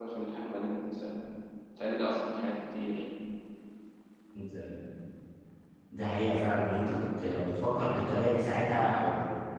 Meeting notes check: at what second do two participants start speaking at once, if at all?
none

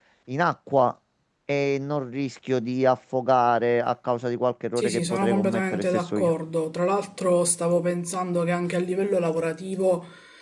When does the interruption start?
5 s

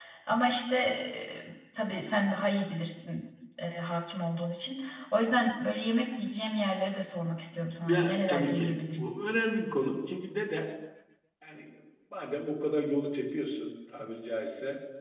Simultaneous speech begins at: 8 s

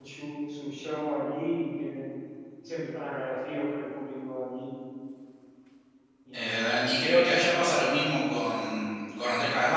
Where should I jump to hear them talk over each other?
none

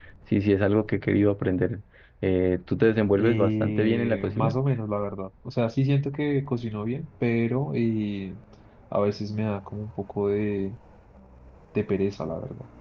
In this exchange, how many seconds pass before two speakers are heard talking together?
3 s

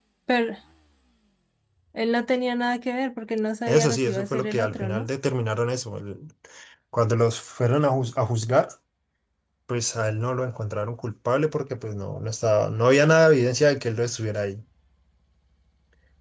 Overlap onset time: 4 s

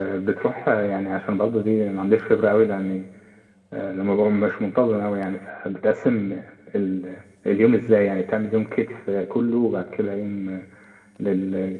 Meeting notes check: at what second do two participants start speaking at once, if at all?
none

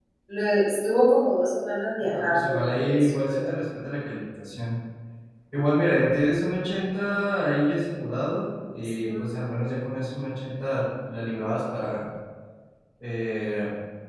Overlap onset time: 2 s

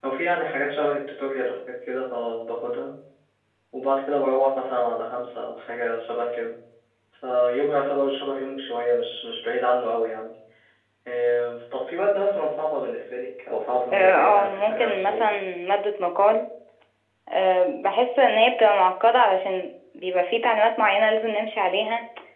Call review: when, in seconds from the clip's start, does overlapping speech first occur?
14 s

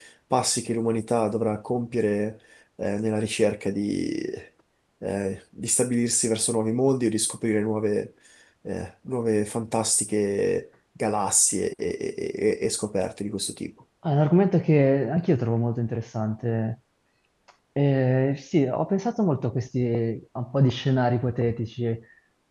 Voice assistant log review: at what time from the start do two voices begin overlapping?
none

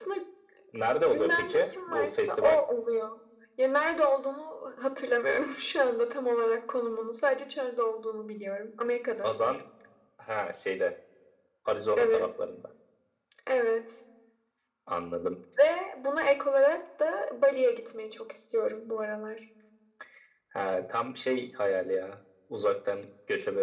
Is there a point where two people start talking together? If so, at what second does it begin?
1 s

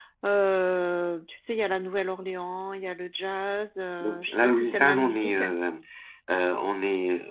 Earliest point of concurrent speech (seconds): 4 s

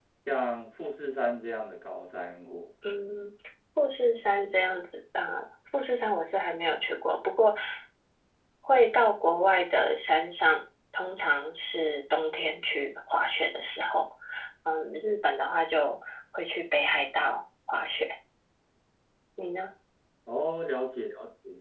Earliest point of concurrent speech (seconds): none

